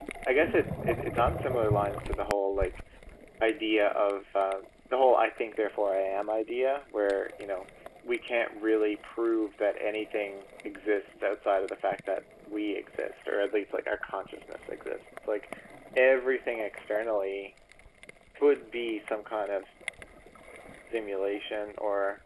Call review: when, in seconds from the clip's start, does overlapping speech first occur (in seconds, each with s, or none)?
none